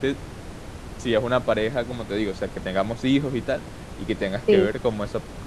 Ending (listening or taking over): listening